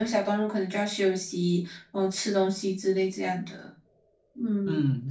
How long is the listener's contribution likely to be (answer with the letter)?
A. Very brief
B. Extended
B